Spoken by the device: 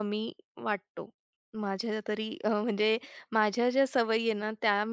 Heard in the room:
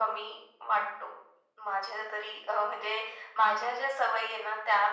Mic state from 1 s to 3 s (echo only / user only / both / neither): echo only